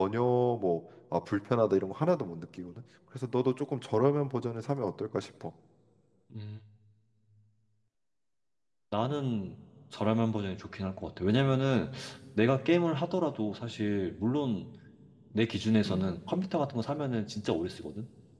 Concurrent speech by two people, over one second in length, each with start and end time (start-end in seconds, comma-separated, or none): none